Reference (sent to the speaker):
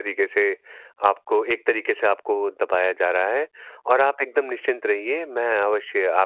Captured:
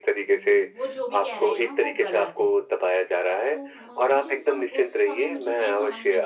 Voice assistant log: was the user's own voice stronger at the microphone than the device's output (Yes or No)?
No